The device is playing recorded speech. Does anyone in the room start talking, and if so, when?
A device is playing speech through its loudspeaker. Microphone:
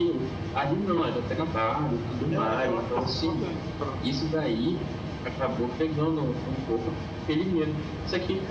2.3 s

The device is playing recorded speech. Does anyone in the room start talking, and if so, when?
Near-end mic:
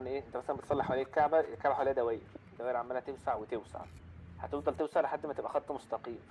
none

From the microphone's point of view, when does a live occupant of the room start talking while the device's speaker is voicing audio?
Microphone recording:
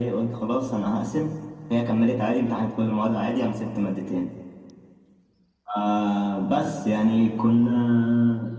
none

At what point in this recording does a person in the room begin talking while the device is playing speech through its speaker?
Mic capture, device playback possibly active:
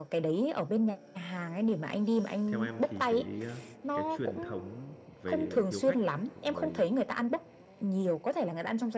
2.5 s

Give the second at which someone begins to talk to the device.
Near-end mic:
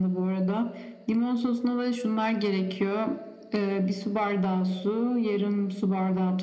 none

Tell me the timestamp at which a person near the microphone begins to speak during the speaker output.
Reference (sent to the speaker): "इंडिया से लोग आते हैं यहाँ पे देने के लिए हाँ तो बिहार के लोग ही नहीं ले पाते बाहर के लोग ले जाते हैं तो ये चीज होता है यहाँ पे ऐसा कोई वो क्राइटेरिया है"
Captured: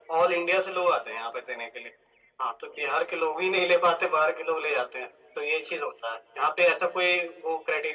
none

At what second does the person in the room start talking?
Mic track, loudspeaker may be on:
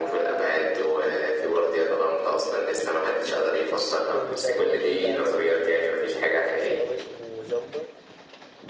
4.1 s

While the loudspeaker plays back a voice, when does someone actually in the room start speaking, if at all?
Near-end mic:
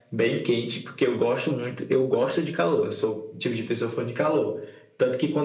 none

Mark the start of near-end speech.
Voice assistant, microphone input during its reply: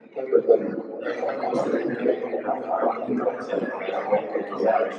none

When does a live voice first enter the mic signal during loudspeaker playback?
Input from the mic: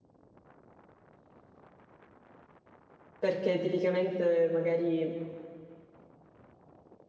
3.2 s

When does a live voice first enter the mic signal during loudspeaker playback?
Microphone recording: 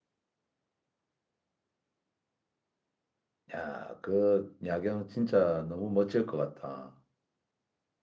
3.5 s

